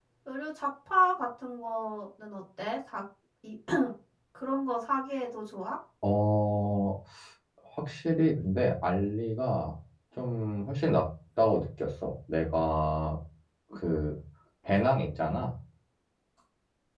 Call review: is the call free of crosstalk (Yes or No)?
Yes